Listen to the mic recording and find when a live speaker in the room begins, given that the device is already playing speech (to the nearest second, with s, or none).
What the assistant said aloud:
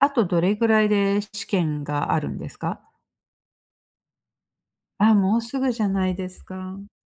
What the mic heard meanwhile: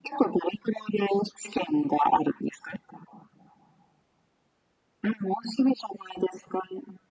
none